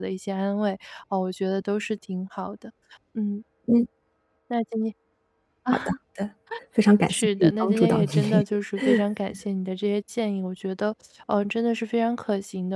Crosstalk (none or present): present